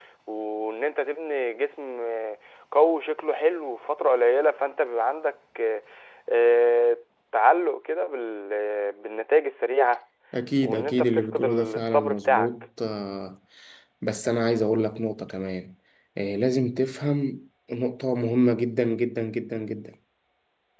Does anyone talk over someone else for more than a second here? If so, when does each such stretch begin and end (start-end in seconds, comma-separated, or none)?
10.6-12.5